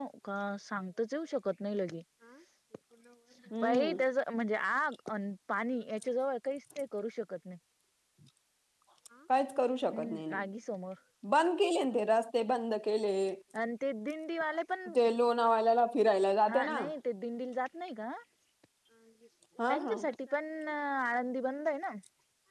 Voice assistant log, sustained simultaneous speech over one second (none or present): none